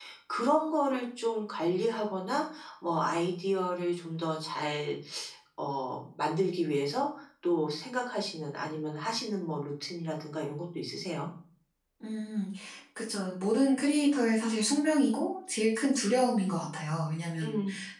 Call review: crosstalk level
none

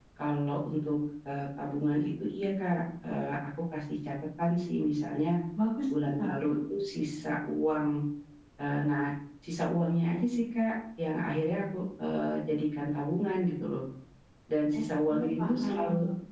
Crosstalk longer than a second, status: present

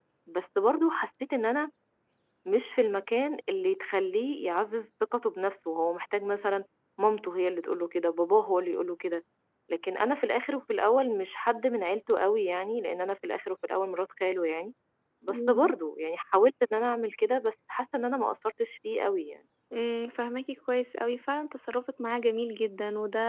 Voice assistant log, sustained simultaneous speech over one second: none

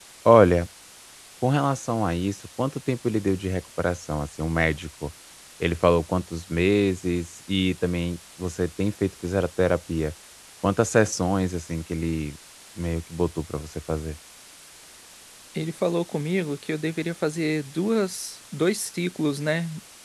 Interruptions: none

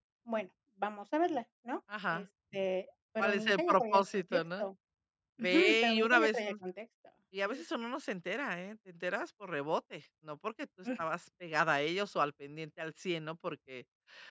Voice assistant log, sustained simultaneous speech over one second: present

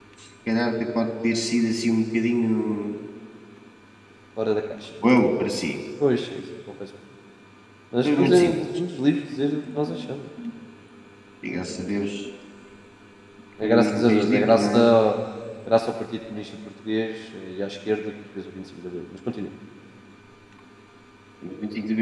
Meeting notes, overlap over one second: present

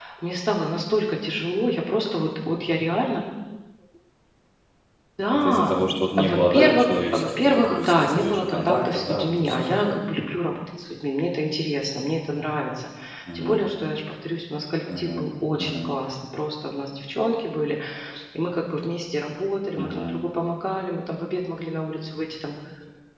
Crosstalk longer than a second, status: present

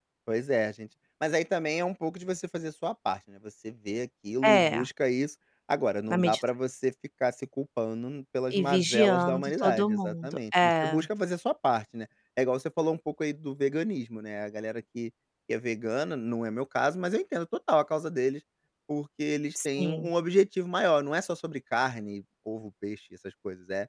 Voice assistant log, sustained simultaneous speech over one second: present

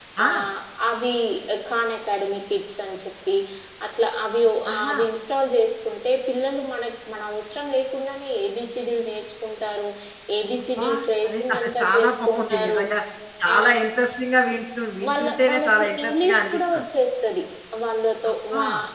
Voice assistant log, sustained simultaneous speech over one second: present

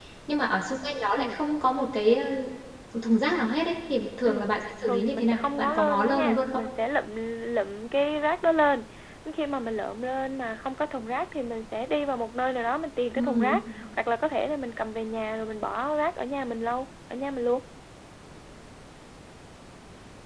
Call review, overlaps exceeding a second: present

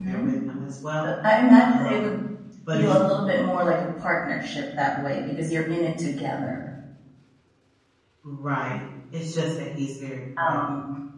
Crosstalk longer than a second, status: none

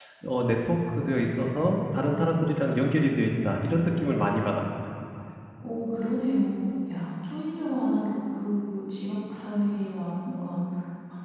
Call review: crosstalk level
none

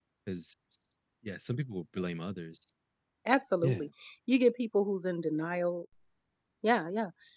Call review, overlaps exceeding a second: none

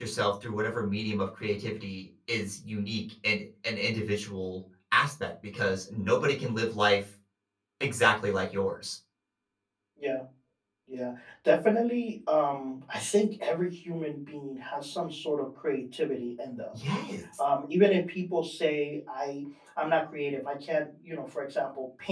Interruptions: none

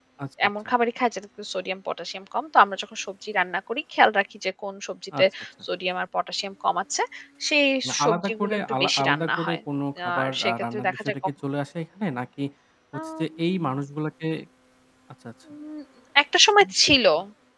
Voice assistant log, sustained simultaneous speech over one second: present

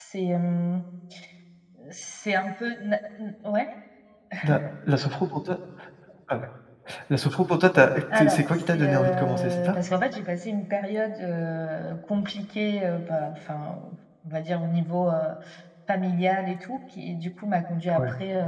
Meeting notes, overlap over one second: present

